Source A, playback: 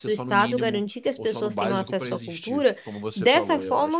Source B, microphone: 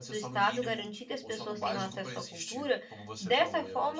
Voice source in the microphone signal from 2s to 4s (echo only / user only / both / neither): echo only